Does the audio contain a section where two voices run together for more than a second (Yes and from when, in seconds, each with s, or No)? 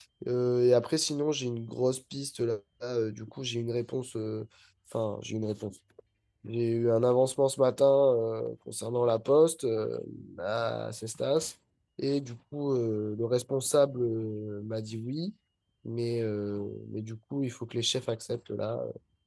No